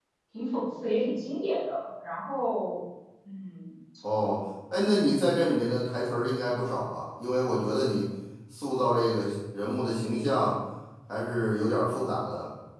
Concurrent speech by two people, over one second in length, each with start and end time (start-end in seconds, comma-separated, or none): none